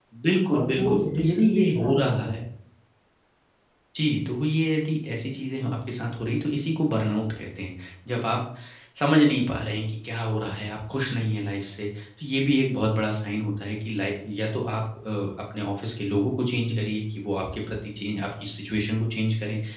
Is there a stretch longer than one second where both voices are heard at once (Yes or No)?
Yes